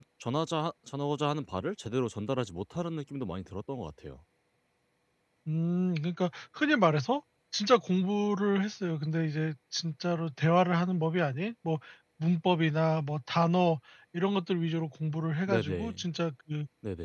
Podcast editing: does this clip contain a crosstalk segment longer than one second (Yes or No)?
No